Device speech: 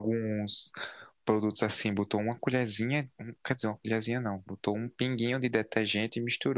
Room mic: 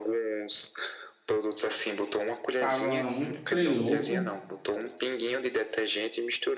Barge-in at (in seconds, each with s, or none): 2.6 s